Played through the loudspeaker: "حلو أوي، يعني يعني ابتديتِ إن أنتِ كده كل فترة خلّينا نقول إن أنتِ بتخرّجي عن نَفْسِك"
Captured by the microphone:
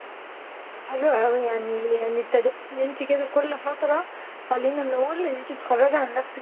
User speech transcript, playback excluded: none

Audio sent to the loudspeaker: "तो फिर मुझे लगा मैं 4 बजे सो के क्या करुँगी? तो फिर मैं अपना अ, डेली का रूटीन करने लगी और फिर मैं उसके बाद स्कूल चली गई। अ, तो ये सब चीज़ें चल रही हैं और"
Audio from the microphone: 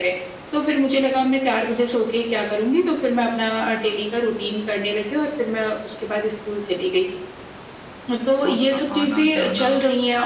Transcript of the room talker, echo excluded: आपका आना-जाना

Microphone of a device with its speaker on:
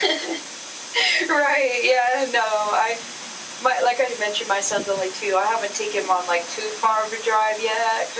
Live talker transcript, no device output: none

